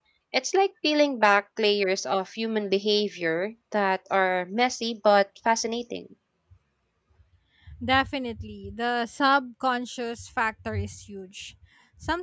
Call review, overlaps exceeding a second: none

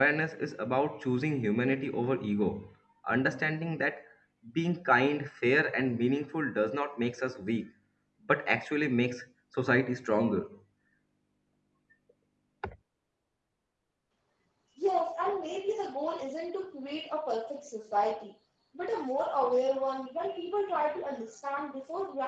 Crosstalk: none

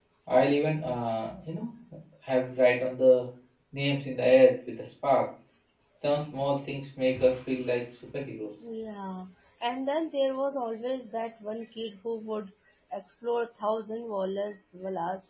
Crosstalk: none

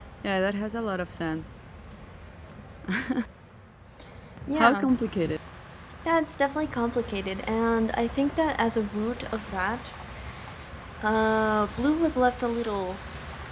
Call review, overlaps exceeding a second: none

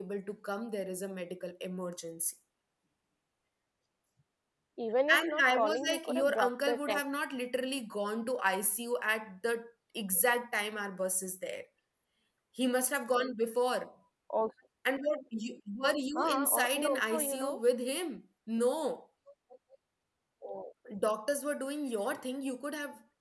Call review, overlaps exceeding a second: present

